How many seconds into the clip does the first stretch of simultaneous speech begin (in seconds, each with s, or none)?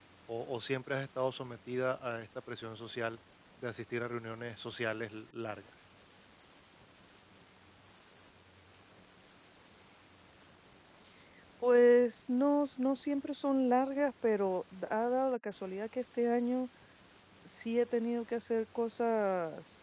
none